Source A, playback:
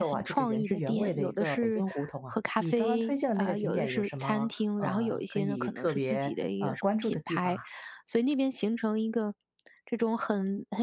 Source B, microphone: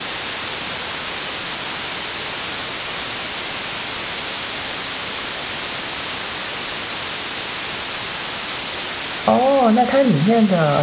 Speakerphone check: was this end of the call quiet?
No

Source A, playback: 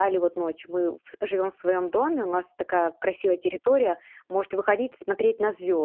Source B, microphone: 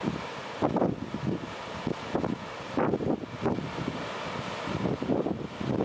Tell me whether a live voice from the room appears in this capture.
No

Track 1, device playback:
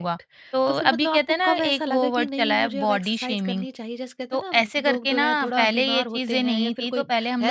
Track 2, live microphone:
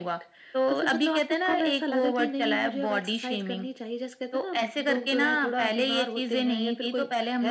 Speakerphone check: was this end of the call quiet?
Yes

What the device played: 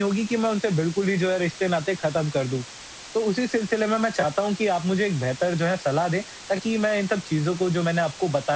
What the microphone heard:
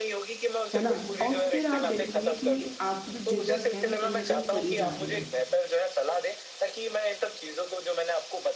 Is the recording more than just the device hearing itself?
Yes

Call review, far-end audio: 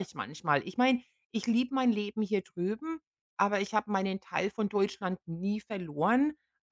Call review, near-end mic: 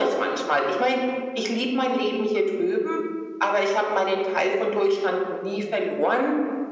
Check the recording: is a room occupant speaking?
No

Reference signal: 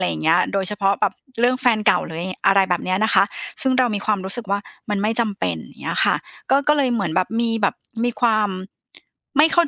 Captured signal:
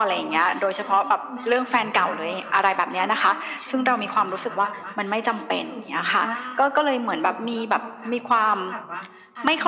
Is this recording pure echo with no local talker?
No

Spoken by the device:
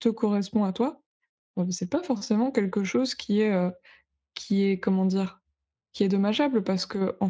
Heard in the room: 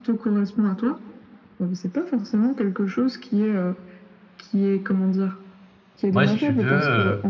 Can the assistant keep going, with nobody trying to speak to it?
No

